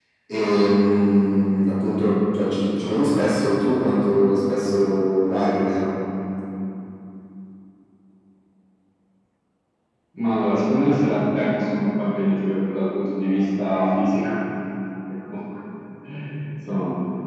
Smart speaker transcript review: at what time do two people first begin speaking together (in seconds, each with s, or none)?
none